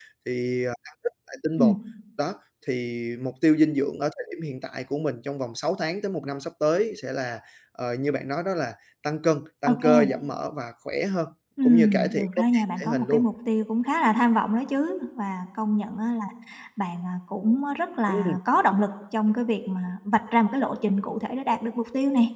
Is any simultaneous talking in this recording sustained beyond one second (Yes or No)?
Yes